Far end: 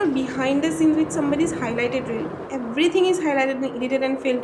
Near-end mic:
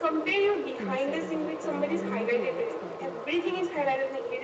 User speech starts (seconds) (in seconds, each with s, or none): 0.8 s